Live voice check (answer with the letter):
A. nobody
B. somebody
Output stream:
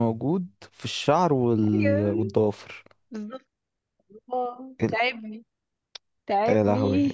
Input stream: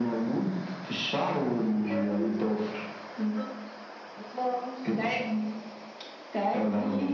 A